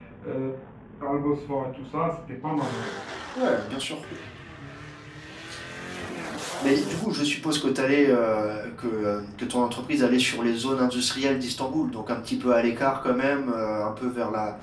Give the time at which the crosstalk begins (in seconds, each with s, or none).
none